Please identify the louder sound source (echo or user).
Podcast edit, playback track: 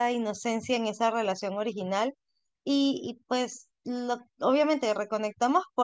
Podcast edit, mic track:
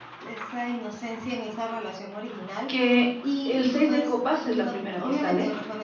user